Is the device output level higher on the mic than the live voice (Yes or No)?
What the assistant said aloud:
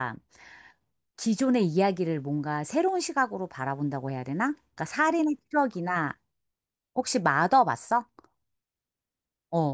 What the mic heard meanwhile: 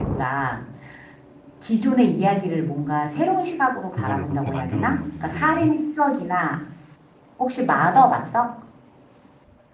Yes